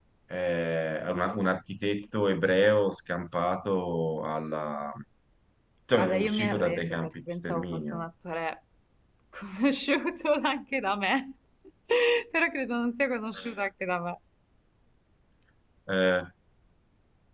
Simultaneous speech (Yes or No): Yes